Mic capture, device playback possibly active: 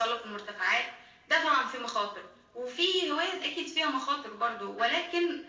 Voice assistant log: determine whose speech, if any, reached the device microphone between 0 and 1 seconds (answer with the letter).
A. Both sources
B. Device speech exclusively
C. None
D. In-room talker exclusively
B